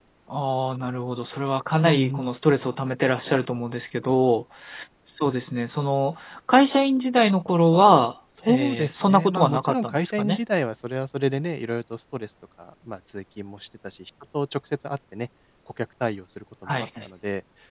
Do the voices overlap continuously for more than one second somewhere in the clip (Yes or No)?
Yes